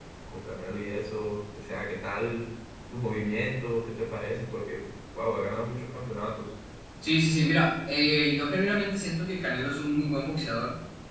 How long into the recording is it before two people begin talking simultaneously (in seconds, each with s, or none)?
none